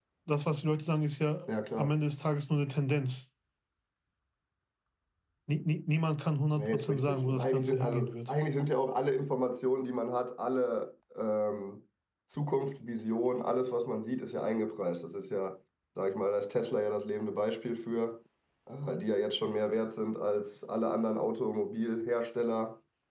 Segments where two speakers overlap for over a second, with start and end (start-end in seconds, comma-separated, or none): 6.6-8.3